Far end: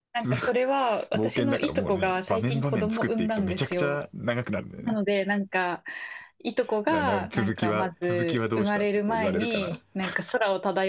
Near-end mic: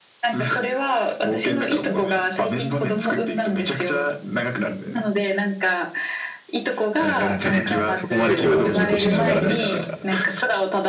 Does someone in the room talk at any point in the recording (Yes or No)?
Yes